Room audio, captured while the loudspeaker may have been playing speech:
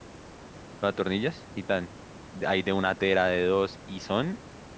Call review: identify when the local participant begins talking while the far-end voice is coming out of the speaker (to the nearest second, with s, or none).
1 s